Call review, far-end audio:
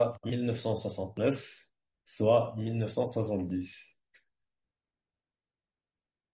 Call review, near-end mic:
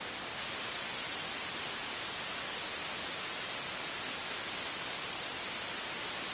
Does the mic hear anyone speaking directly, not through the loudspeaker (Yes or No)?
No